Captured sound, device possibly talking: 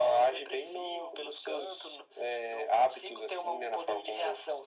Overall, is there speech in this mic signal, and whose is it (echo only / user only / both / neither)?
echo only